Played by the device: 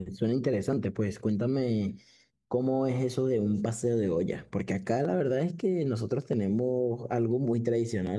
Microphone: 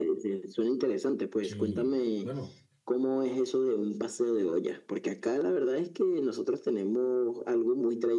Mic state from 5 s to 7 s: echo only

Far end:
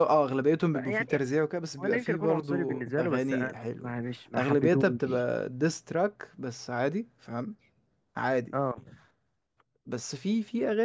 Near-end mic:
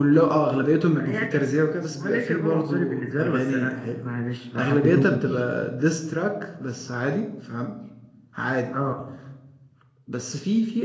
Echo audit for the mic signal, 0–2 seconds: echo only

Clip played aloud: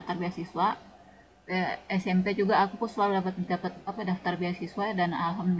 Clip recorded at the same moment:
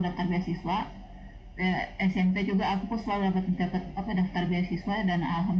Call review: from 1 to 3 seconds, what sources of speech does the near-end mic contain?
echo only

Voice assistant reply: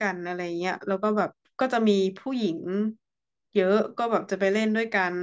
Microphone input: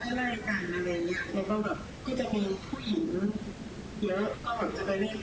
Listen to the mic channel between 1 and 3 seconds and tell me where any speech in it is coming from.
echo only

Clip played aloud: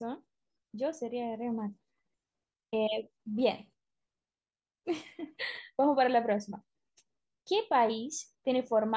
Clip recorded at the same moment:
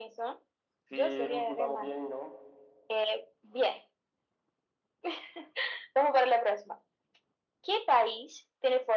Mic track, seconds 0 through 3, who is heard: both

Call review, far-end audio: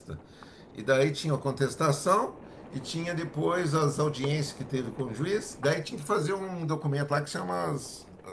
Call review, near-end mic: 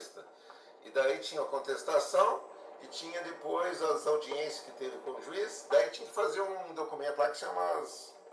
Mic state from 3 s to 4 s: echo only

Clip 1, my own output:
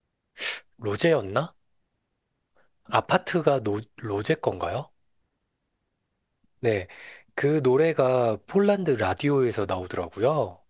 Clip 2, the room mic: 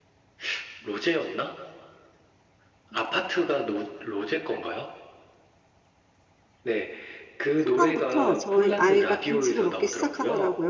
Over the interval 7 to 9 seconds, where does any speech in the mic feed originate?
both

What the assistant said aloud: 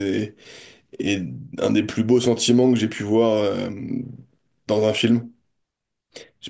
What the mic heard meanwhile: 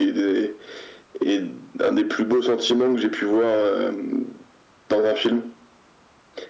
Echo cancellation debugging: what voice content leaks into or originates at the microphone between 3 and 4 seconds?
echo only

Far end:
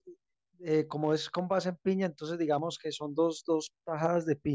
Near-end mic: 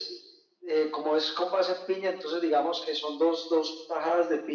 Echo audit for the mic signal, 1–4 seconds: echo only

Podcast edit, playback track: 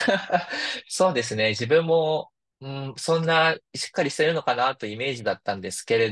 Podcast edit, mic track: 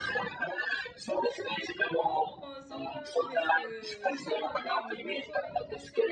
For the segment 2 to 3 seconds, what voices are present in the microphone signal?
both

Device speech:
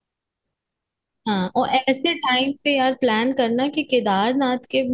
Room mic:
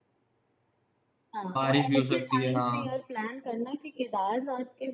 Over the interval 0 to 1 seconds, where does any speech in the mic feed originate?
neither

